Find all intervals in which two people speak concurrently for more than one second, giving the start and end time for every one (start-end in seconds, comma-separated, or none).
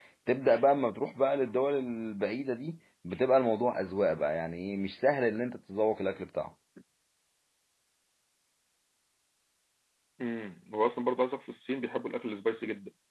none